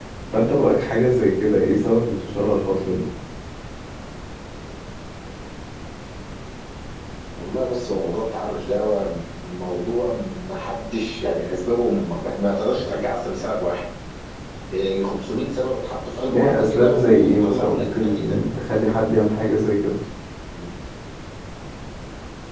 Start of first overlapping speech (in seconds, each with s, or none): 16.3 s